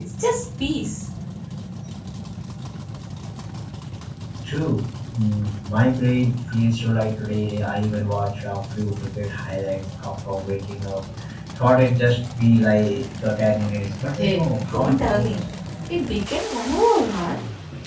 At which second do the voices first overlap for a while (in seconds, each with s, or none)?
14.2 s